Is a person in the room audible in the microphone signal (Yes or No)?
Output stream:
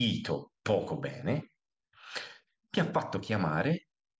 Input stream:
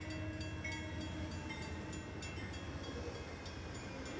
No